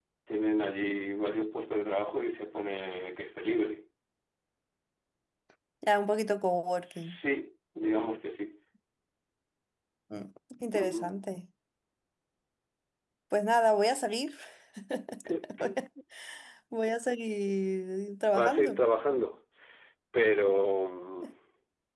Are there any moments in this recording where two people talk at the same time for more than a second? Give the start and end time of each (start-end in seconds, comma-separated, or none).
none